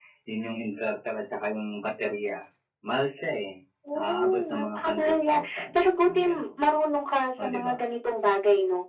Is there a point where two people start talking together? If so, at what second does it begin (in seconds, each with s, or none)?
4.0 s